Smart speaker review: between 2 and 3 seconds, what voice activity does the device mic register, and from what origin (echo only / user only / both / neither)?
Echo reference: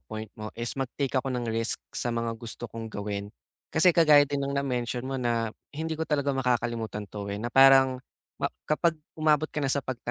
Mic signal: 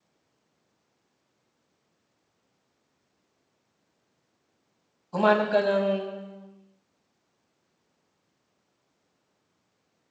neither